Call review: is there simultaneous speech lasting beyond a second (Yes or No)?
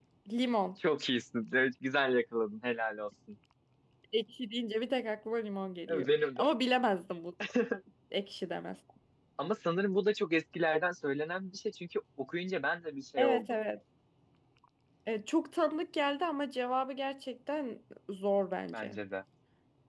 No